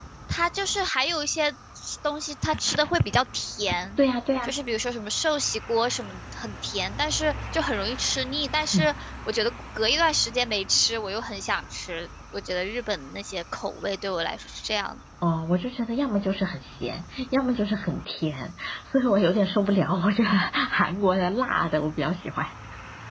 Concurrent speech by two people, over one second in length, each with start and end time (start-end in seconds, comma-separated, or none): none